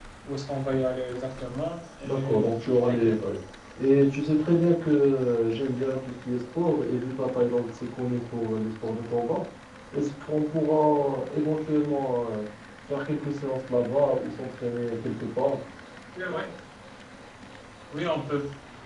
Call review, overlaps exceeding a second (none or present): present